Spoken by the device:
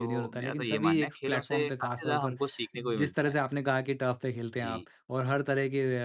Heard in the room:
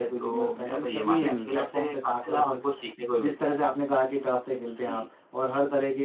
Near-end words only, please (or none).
हुँ।